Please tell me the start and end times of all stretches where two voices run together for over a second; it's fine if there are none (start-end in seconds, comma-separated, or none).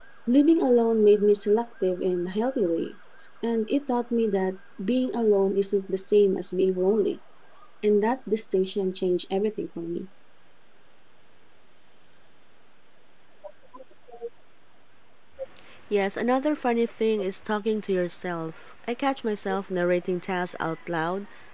none